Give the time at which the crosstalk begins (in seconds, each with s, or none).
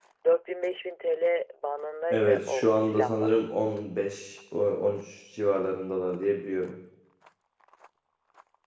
2.1 s